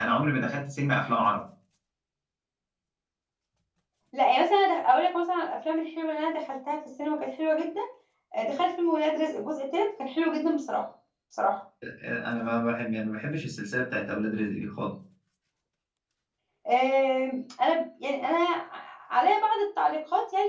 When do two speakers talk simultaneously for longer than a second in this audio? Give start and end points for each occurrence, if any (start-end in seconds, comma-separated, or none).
none